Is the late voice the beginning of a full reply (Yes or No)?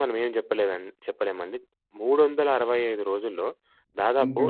No